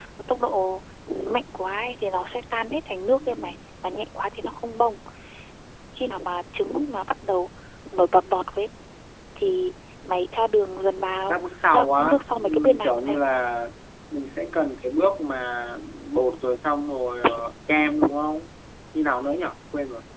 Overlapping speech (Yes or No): Yes